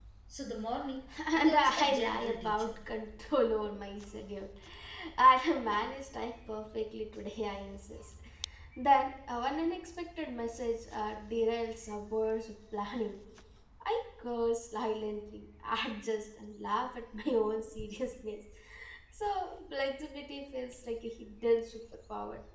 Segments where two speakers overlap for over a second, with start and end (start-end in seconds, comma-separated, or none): 1.4-2.7